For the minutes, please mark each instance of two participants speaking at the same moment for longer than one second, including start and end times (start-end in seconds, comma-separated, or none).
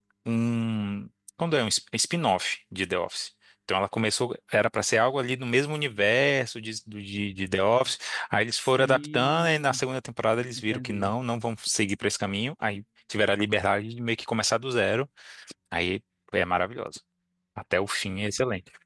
8.5-9.8